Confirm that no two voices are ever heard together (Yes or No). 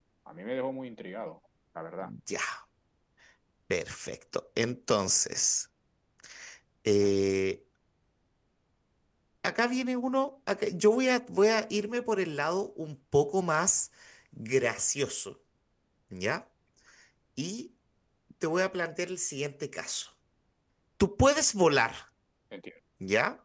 Yes